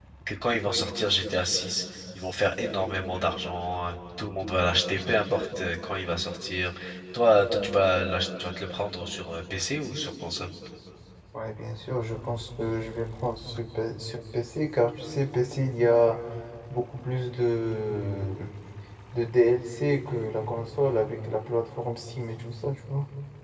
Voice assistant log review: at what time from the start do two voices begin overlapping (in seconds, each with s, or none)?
none